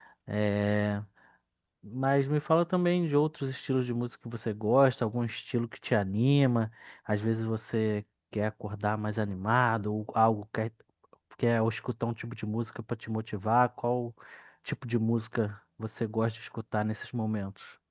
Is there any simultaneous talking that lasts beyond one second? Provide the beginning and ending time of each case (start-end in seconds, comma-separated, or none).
none